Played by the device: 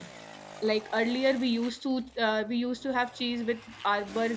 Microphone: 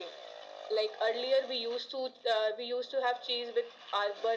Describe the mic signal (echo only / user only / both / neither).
echo only